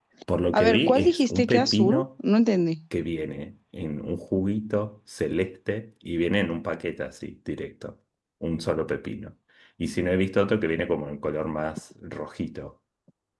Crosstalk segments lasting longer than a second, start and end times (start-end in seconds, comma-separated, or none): 0.5-2.0